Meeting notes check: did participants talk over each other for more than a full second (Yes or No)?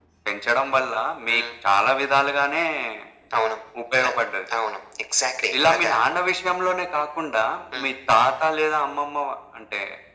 No